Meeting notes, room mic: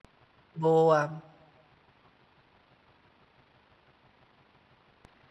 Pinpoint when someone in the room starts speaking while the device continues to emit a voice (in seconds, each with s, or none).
0.5 s